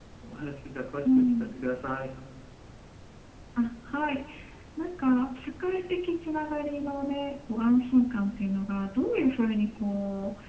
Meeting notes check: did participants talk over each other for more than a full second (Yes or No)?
No